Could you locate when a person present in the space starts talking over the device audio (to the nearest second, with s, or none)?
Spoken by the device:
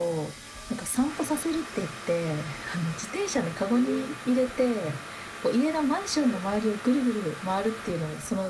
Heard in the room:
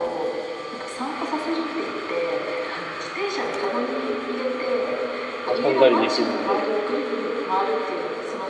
5 s